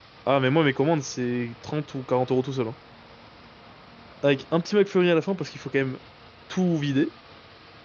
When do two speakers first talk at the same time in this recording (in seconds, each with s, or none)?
none